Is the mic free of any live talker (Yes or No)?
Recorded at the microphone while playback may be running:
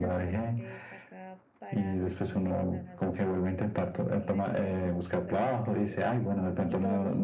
No